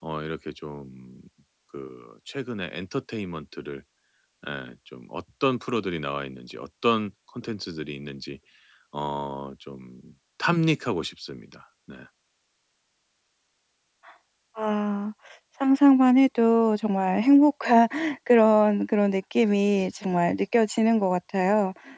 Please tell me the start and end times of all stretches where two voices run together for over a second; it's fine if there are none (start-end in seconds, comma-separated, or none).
none